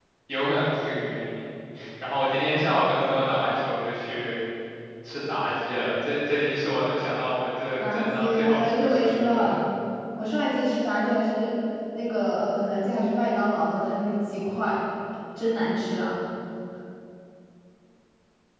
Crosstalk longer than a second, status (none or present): present